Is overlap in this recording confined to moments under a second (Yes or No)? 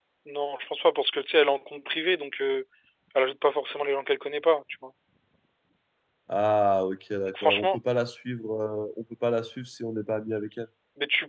Yes